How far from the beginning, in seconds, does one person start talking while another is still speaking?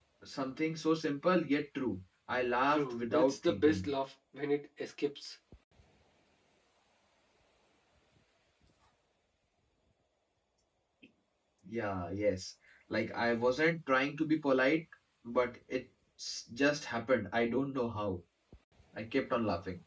2.7 s

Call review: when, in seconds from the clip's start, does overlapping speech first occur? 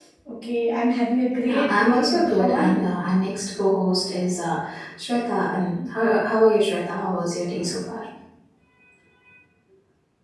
1.5 s

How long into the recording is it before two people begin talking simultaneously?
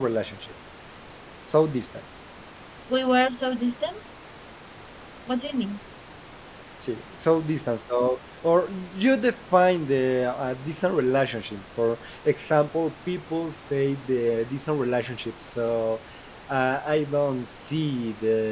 none

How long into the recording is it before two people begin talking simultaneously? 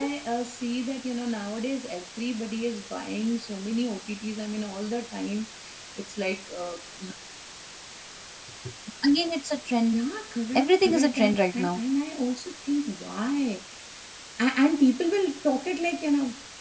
10.6 s

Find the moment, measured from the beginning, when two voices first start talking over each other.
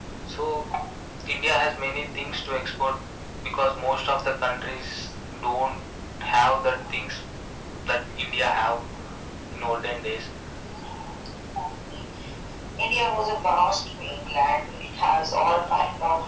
none

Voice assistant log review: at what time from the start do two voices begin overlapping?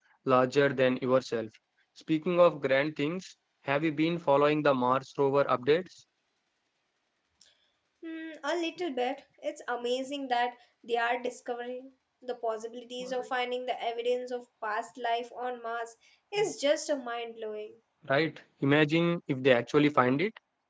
none

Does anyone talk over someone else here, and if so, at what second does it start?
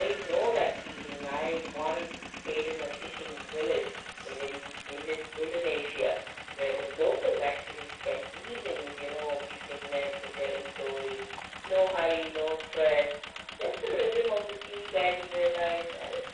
none

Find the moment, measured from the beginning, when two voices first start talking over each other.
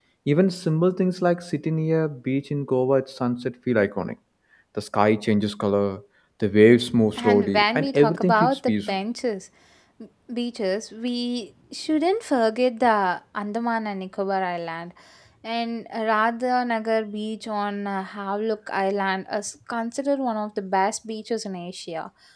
7.2 s

